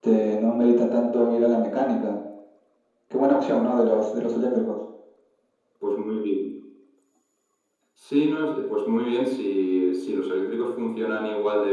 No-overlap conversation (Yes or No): Yes